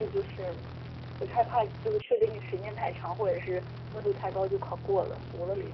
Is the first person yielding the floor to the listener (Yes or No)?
Yes